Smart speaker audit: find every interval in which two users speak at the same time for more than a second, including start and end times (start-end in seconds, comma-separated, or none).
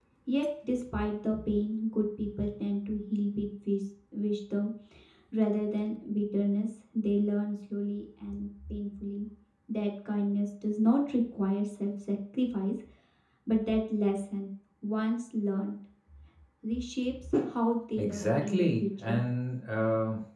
18.0-19.2